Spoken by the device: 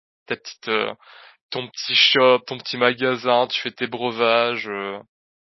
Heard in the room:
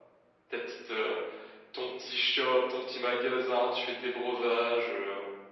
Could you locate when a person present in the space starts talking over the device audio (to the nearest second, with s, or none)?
none